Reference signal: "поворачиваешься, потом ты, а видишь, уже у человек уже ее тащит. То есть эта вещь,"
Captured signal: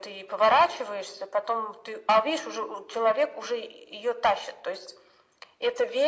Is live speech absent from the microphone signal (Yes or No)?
Yes